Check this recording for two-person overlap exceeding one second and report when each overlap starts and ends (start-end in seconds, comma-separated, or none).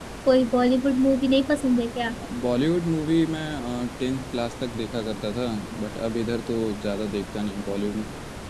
none